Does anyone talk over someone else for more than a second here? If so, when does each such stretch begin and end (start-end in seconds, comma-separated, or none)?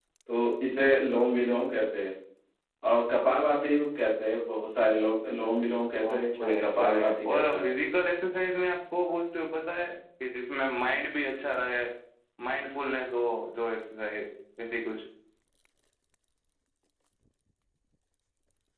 6.0-7.6